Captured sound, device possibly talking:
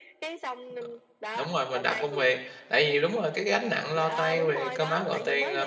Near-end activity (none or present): present